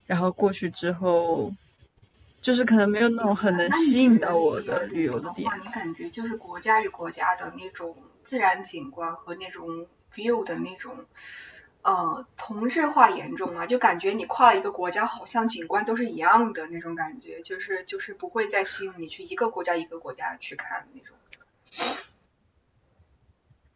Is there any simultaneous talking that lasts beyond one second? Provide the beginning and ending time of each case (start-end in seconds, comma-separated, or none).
3.1-5.5